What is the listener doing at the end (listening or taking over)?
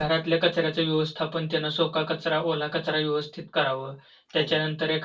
listening